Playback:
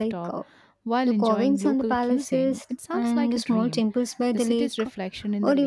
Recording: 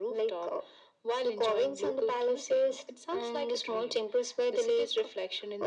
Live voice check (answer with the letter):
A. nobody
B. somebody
A